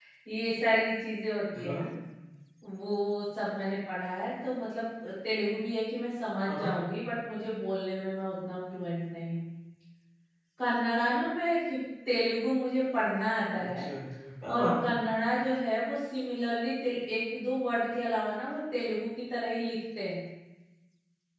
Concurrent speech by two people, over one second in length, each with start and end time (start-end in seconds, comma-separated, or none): none